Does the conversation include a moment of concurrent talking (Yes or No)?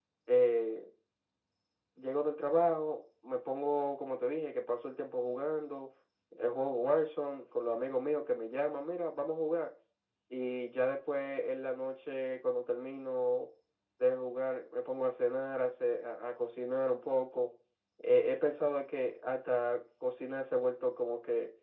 No